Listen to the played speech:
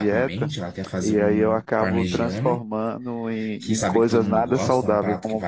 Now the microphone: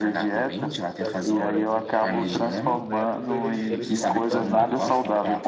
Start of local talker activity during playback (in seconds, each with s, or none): 1.0 s